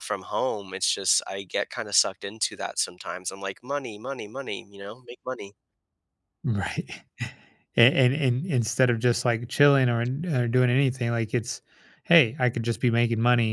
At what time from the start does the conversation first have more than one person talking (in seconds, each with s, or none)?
none